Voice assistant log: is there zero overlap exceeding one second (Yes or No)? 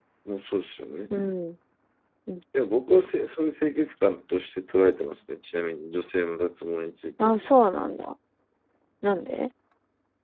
Yes